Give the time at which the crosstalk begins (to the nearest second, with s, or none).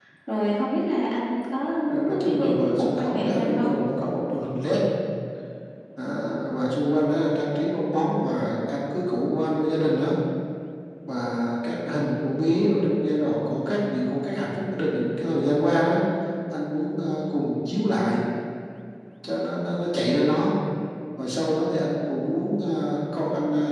2 s